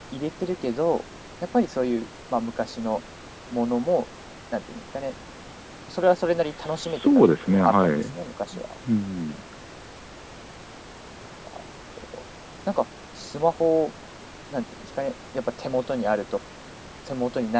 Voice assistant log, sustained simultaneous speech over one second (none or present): present